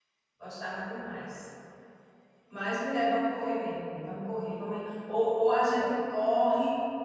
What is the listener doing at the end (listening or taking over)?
listening